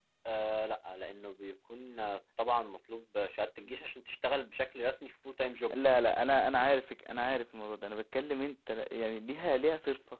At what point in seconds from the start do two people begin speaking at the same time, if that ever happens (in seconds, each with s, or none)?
none